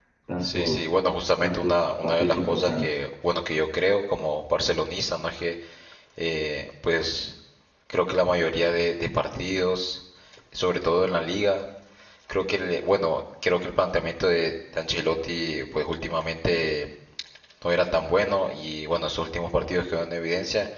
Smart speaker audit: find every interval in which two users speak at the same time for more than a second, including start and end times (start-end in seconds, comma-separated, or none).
1.4-3.0